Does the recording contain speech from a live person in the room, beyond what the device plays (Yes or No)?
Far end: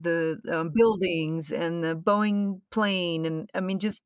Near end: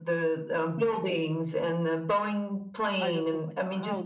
Yes